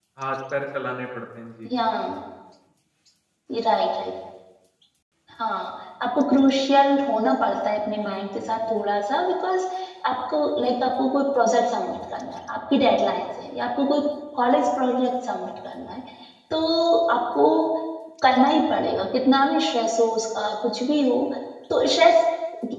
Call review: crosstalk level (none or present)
none